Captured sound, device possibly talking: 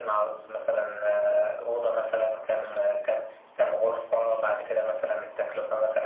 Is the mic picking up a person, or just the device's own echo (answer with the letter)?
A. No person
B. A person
A